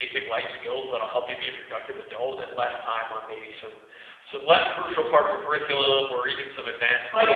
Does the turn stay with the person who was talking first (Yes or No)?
No